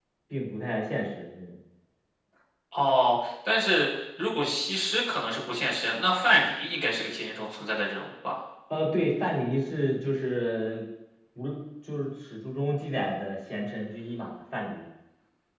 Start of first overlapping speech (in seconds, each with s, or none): none